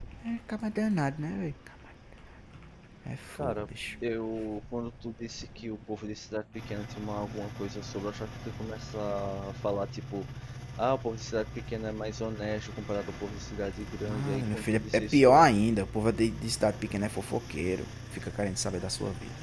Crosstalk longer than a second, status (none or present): present